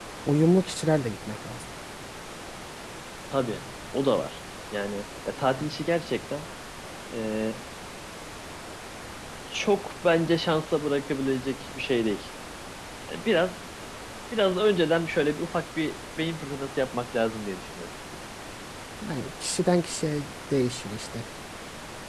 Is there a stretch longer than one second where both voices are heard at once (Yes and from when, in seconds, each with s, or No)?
No